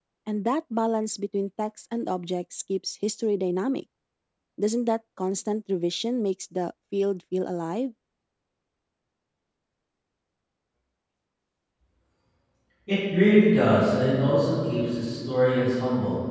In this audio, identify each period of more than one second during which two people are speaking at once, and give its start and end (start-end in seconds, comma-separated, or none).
none